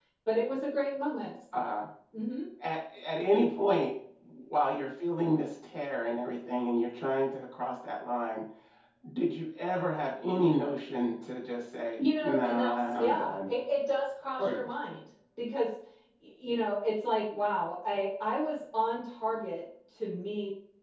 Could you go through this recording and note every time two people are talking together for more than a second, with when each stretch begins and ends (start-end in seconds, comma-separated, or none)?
12.2-13.5